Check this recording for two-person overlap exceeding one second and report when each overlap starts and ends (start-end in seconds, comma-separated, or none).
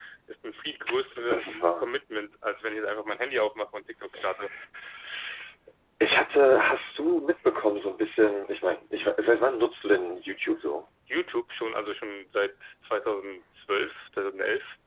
none